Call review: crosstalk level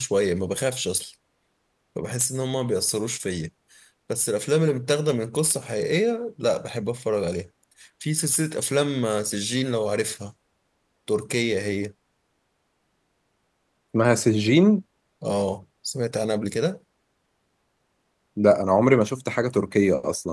none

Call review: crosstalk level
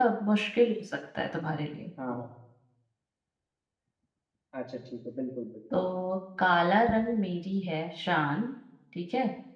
none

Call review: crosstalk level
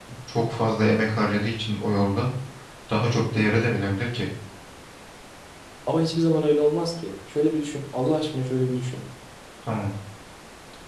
none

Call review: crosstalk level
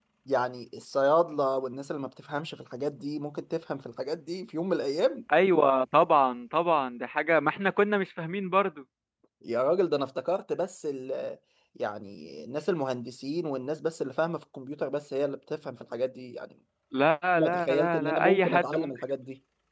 present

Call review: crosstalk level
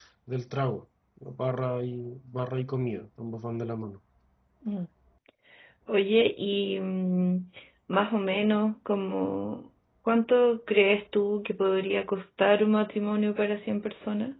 none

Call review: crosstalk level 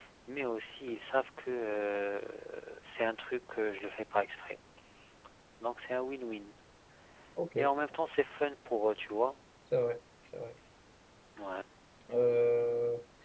none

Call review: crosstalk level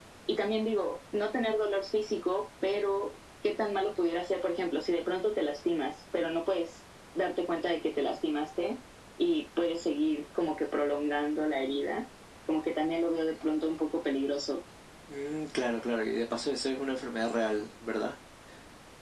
none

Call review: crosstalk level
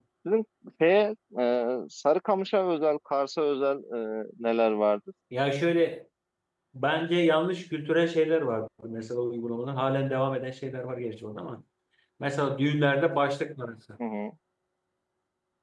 none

